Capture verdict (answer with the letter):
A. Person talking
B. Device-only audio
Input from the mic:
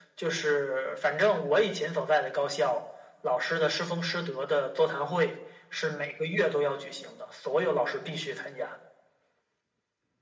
B